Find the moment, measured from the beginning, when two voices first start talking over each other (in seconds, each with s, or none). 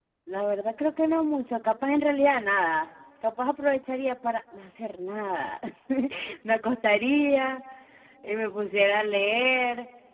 none